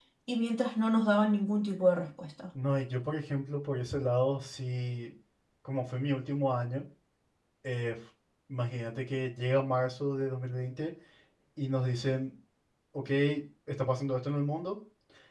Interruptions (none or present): none